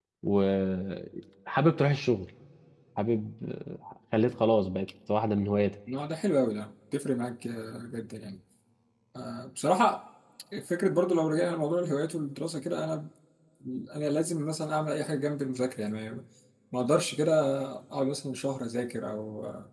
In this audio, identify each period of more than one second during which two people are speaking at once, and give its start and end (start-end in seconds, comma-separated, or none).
none